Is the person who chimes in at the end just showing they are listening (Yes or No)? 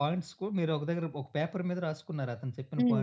No